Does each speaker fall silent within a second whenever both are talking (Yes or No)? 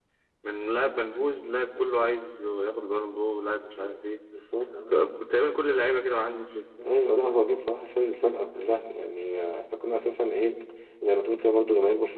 Yes